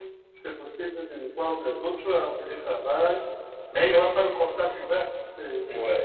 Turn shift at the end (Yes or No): Yes